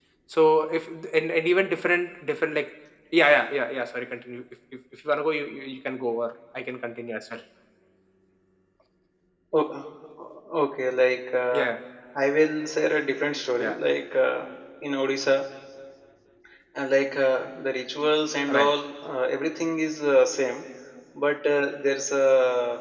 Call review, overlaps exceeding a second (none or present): none